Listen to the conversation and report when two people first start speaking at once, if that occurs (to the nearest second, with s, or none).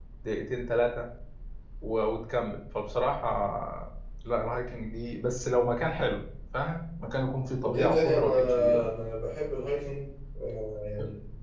8 s